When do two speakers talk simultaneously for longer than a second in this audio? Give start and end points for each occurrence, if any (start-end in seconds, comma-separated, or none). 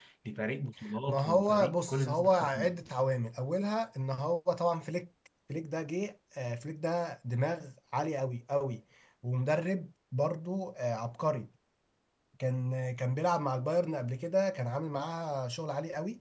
1.1-2.8